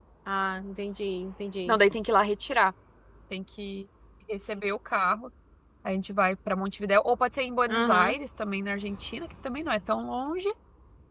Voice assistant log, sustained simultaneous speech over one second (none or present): none